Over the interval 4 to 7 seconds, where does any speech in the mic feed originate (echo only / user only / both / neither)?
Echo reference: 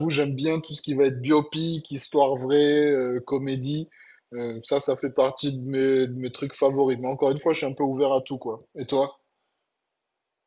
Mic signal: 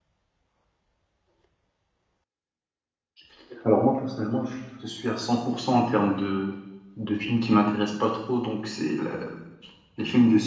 user only